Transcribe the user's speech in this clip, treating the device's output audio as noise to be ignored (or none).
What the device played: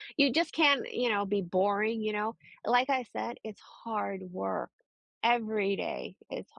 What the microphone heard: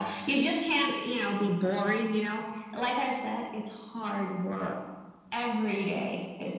none